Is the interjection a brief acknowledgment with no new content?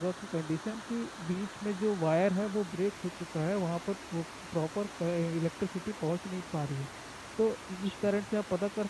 Yes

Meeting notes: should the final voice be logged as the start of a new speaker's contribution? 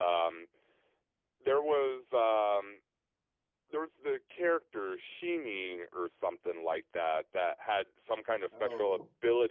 No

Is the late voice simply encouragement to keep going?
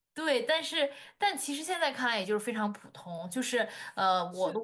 No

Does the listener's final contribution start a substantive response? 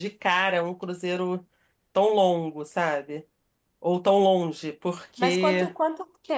Yes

